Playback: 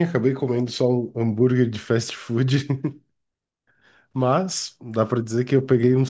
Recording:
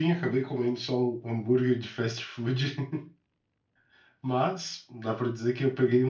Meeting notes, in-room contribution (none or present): none